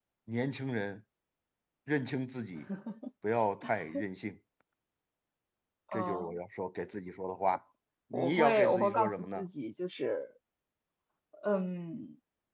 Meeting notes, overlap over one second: present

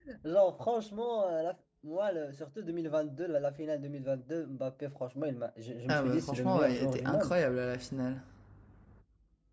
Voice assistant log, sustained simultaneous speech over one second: present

